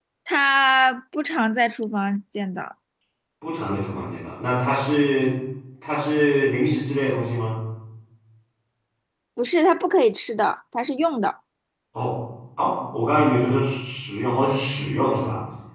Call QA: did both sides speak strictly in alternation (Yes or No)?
Yes